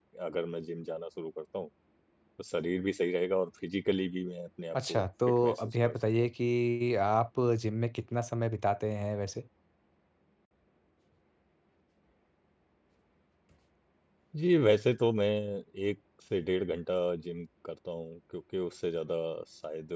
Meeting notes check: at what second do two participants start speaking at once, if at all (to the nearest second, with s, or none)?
5 s